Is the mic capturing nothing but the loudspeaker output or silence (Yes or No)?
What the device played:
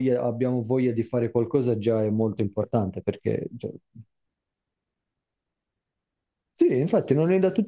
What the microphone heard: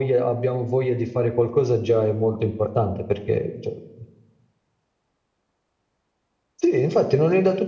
Yes